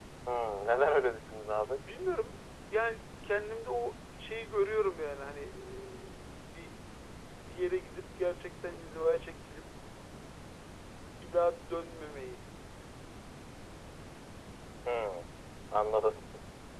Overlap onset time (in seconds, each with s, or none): none